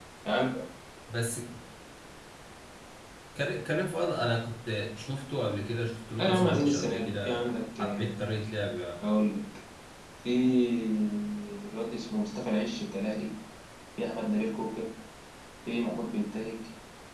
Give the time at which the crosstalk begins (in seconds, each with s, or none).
6.2 s